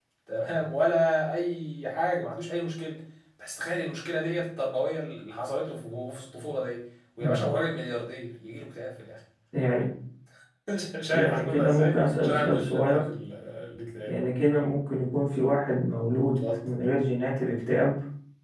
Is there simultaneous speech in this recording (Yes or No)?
Yes